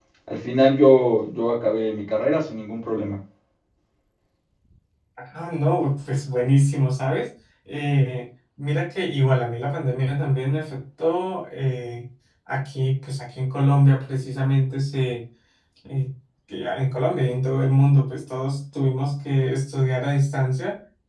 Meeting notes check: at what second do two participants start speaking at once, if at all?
none

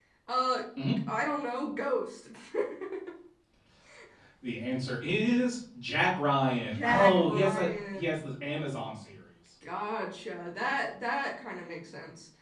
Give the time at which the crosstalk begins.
7 s

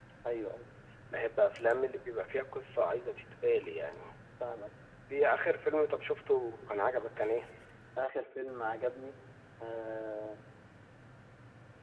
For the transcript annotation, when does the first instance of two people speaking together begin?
none

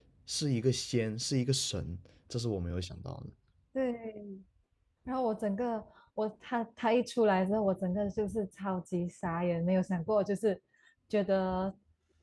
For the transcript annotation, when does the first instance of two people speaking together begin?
none

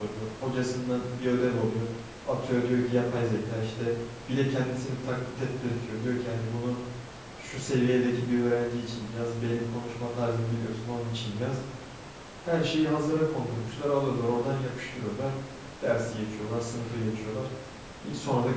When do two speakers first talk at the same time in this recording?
none

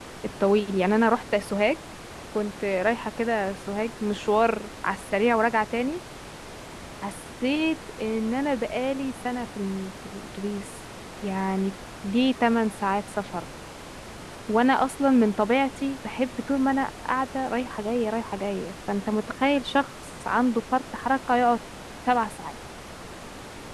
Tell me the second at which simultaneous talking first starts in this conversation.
none

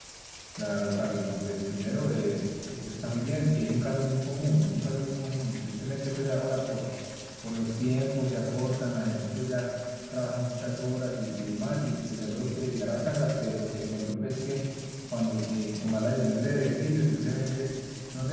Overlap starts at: none

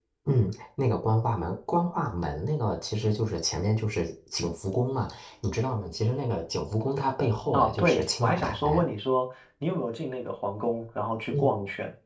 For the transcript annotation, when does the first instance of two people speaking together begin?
8 s

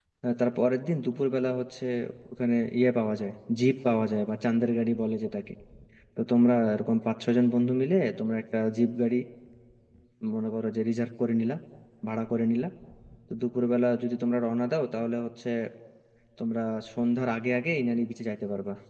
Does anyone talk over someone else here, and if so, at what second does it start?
none

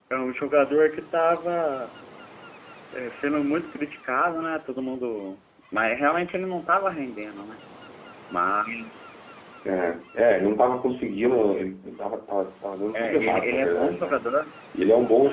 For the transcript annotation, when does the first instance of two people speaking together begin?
13 s

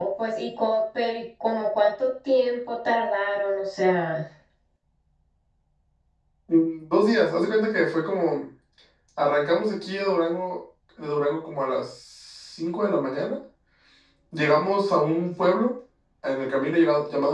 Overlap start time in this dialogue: none

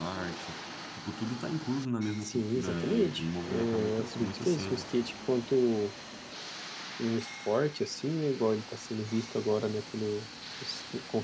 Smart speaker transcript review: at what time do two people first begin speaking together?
2 s

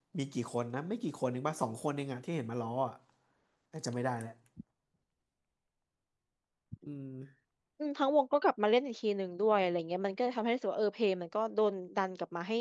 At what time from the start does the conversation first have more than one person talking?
none

